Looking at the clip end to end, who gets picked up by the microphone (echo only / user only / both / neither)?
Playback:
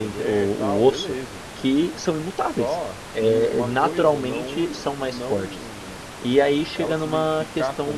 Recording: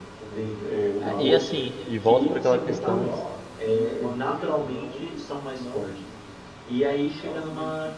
both